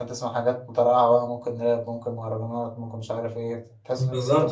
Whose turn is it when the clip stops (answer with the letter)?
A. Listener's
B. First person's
A